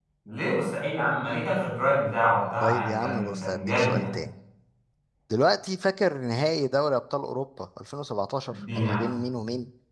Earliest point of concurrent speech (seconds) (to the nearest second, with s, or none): 3 s